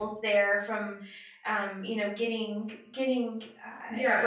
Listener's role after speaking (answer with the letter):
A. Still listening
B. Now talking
B